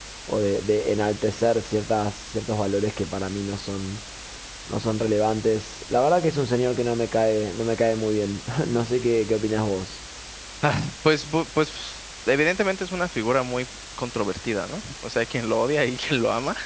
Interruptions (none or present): none